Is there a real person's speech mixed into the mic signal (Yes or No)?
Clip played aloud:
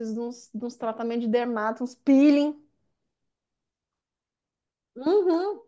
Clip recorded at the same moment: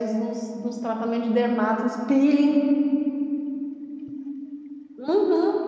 No